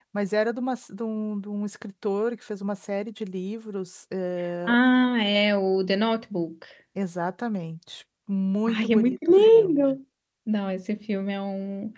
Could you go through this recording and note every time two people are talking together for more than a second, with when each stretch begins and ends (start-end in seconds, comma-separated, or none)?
8.7-10.0